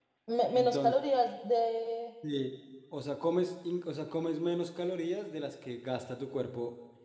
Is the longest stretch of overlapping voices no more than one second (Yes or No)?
Yes